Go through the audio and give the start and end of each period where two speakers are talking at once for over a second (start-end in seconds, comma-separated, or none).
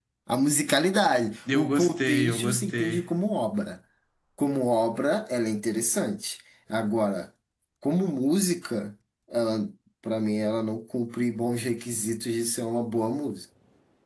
1.5-3.0